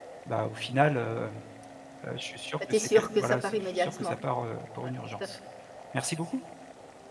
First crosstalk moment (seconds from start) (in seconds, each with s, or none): 2.7 s